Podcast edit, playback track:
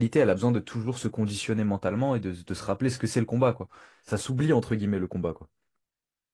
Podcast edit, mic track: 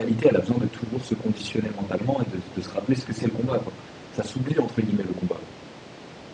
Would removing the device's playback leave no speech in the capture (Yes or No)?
Yes